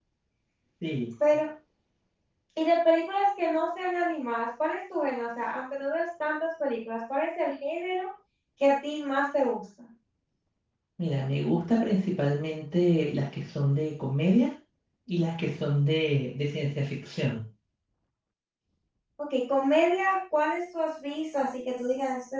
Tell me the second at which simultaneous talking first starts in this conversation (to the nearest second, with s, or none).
none